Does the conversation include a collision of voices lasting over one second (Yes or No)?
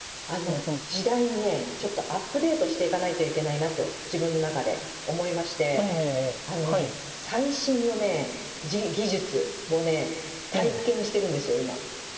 No